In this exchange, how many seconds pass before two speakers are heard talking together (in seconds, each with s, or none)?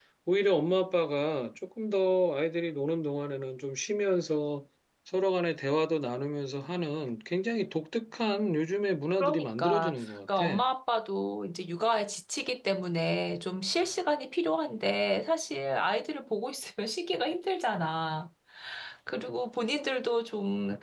9.2 s